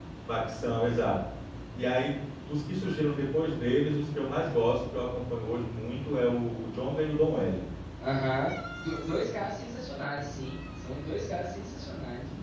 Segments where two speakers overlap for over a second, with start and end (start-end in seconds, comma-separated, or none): none